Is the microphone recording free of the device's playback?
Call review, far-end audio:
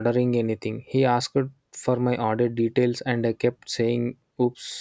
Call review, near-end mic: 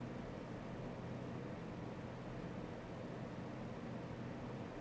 Yes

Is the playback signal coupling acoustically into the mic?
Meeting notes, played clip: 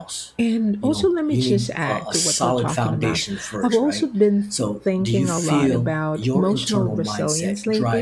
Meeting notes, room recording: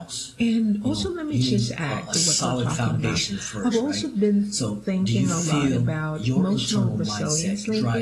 Yes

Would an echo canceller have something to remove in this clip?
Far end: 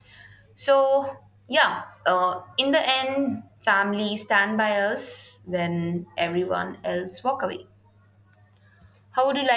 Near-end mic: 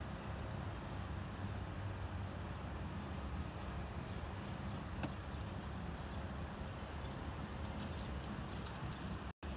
No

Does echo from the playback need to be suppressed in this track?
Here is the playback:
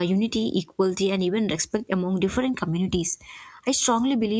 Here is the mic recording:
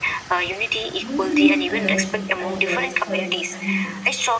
Yes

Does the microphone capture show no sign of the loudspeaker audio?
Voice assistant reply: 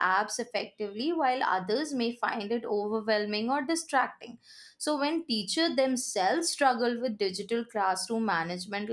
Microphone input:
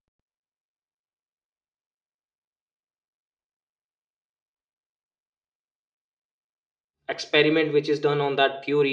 Yes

